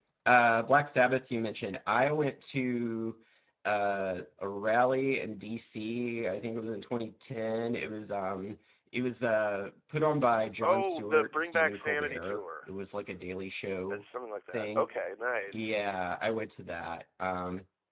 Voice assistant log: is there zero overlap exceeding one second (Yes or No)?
No